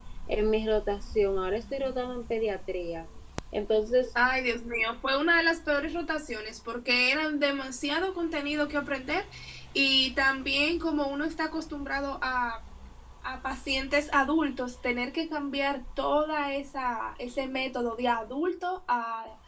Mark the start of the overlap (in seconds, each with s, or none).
none